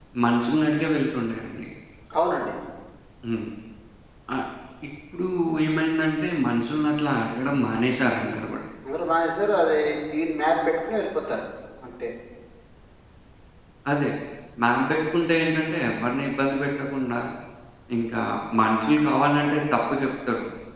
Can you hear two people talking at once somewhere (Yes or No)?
No